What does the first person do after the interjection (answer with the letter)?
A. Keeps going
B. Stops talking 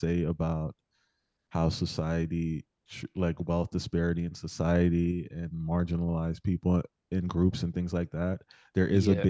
A